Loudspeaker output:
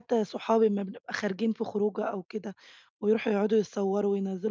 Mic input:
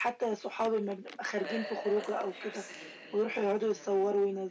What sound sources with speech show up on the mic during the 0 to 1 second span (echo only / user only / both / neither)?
echo only